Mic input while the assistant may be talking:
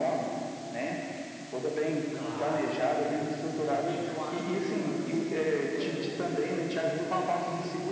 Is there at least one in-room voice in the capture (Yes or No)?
Yes